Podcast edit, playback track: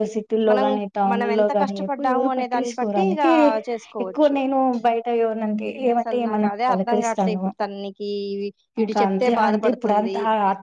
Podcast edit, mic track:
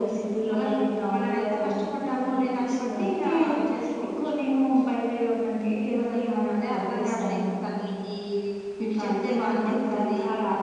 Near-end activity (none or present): none